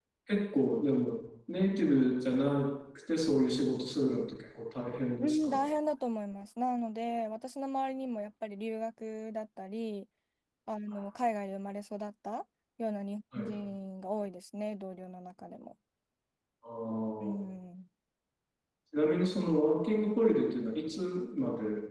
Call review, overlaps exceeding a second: none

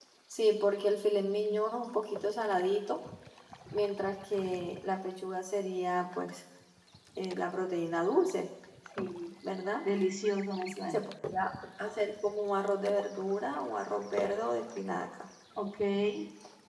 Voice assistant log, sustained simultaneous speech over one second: none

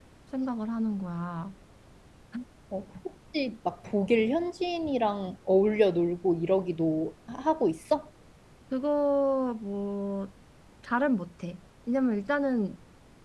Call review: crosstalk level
none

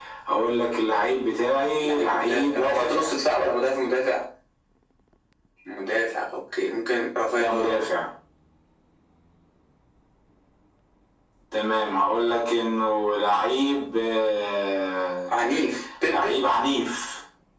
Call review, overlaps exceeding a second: present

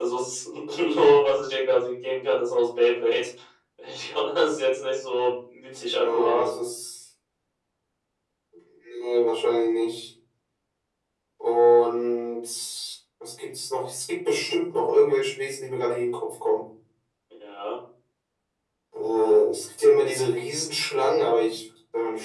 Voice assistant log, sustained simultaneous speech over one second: none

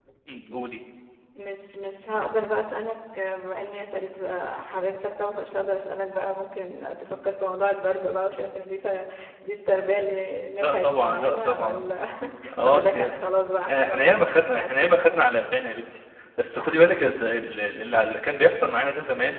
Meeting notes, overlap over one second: present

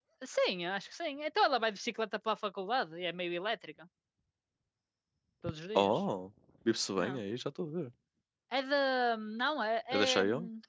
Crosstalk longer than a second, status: none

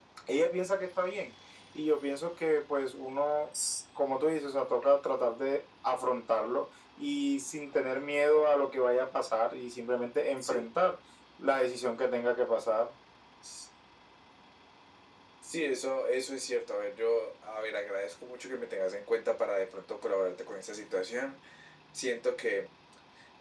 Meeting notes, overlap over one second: none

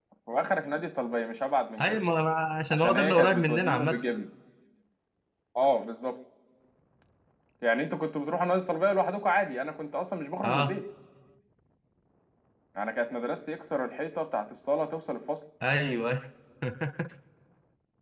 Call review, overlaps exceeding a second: present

